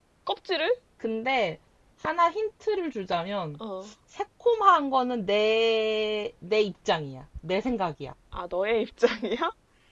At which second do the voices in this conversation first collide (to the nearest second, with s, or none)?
none